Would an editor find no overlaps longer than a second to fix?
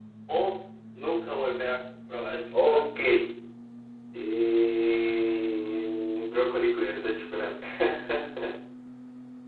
Yes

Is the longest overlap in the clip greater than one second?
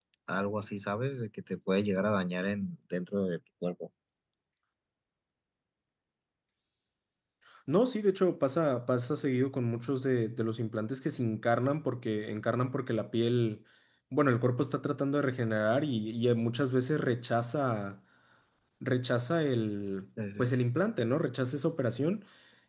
No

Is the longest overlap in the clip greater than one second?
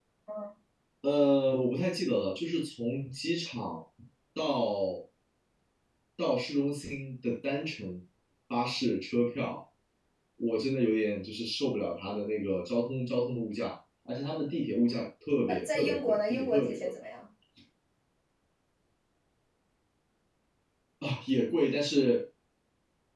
Yes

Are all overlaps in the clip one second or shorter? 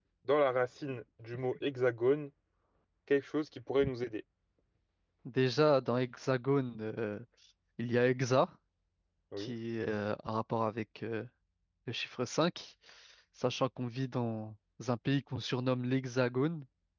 Yes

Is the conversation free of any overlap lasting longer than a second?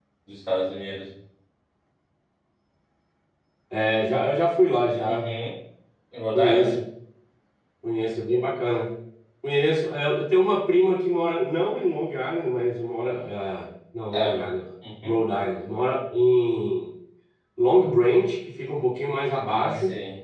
Yes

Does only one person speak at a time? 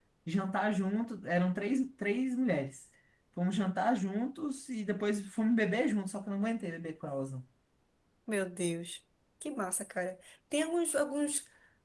Yes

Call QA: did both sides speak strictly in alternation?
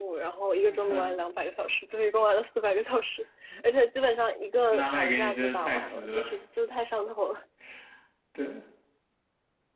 No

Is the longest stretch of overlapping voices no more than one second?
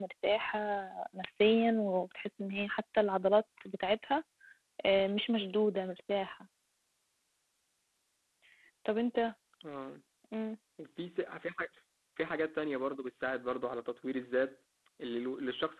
Yes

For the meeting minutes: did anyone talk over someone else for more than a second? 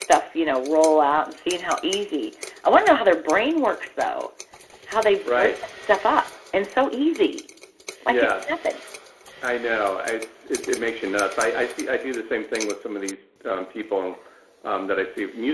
No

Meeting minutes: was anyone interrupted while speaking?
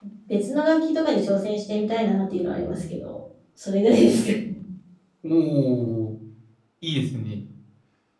No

